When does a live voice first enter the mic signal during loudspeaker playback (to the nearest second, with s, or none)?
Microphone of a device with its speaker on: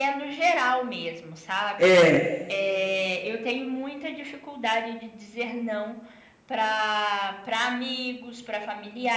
2 s